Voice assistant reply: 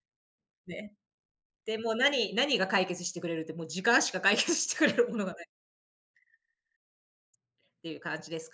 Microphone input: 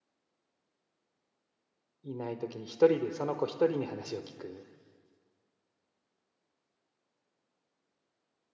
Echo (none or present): none